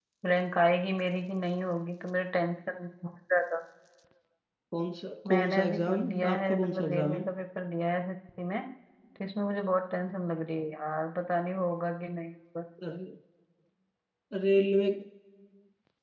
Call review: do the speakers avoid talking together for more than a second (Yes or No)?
No